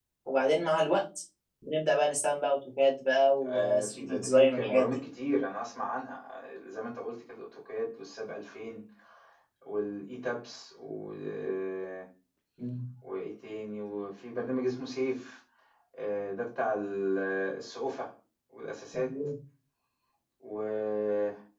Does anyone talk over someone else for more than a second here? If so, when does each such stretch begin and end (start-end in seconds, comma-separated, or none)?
3.5-5.0